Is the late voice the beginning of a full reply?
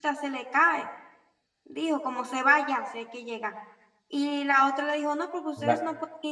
No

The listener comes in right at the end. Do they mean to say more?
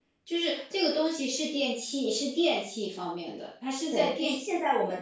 Yes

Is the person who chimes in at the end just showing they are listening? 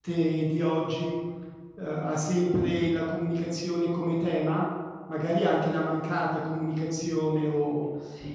Yes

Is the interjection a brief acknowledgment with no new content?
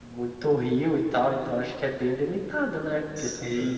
No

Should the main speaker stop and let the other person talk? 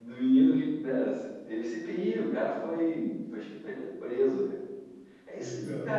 No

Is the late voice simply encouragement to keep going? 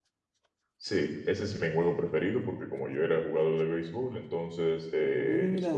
Yes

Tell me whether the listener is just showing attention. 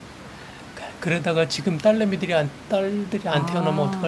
No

